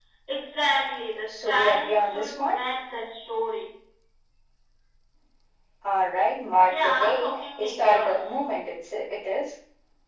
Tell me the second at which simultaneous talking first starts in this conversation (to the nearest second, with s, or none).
1 s